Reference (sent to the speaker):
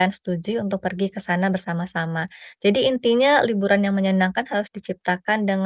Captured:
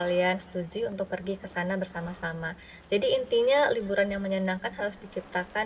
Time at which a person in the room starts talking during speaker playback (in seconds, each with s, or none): none